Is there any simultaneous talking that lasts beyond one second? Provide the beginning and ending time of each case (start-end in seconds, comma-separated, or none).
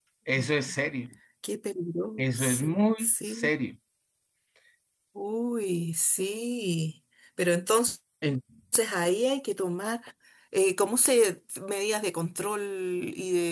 2.2-3.5